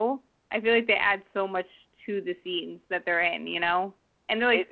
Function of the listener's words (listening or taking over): taking over